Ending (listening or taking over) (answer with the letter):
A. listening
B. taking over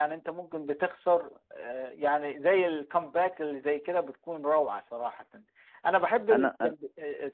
A